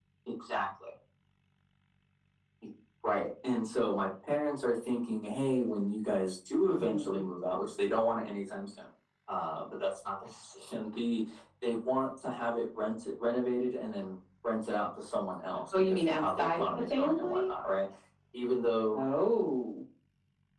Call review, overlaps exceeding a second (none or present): present